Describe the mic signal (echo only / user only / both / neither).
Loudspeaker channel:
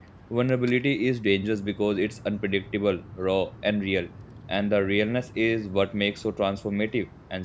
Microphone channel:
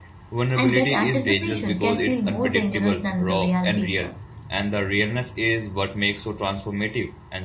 both